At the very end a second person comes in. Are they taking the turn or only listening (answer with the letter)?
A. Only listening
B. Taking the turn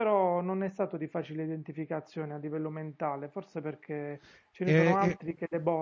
A